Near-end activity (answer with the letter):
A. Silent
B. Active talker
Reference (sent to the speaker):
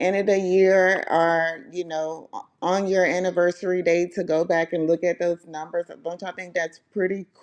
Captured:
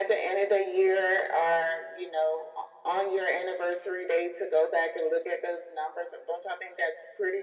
A